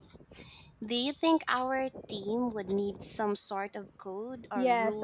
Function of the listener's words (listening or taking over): taking over